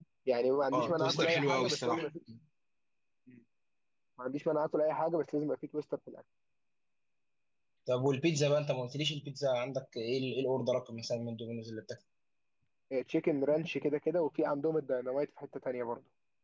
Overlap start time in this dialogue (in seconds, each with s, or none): 0.7 s